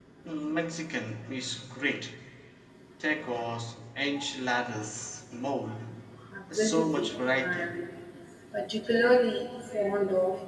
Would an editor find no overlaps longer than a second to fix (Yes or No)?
No